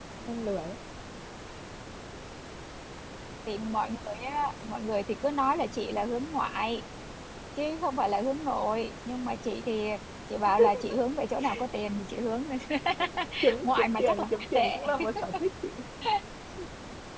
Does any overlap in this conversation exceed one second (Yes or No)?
Yes